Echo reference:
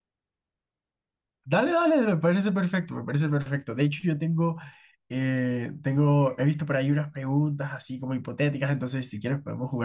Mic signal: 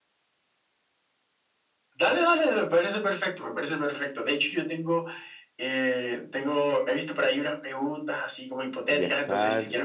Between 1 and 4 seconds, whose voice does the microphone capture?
echo only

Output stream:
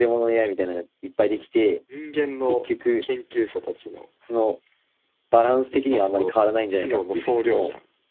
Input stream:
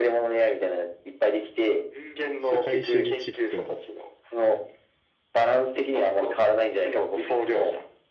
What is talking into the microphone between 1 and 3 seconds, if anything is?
both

